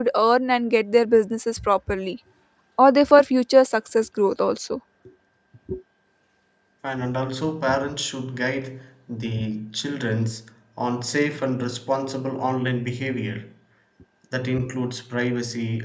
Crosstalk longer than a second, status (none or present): none